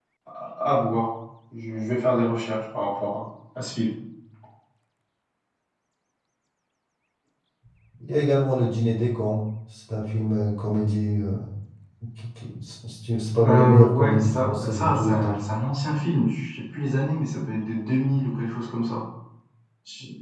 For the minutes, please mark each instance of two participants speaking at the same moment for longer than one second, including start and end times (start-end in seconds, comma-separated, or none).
13.4-15.4